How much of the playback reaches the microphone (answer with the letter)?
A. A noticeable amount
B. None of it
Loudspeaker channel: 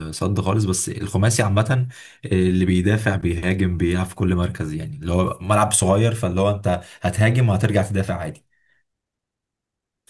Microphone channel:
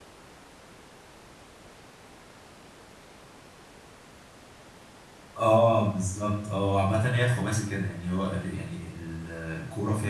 B